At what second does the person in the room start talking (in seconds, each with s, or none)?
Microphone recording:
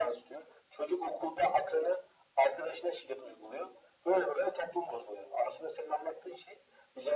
none